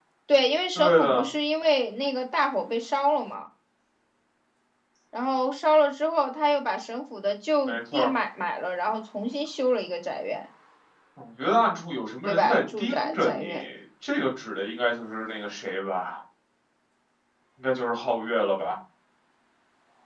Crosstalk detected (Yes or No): Yes